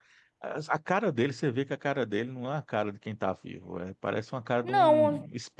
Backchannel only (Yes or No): No